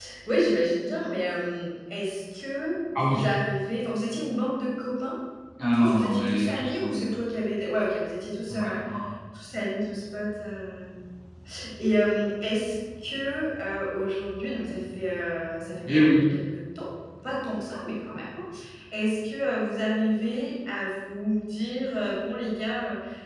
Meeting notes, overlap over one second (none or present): present